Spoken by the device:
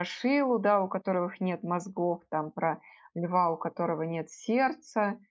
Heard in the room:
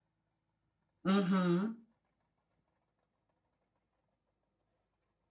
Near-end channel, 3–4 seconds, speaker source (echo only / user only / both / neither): neither